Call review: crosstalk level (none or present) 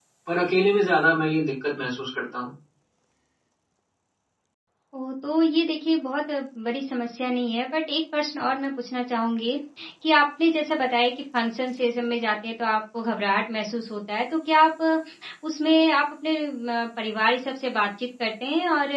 none